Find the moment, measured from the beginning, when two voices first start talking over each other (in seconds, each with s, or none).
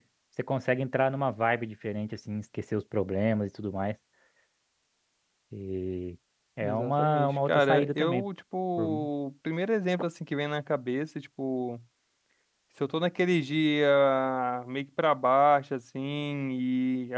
6.6 s